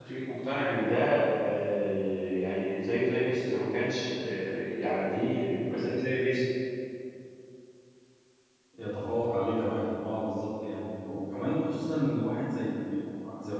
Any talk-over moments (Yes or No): No